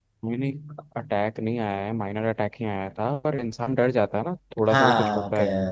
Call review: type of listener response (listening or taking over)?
listening